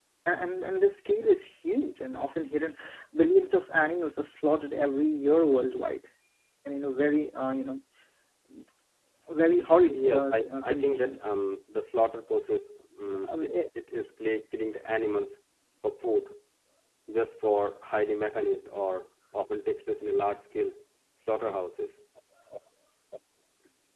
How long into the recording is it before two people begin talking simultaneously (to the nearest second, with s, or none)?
10 s